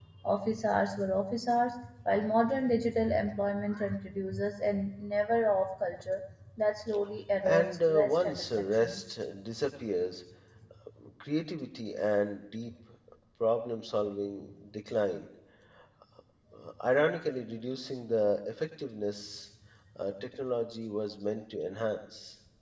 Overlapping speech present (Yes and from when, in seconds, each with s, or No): Yes, from 7.4 s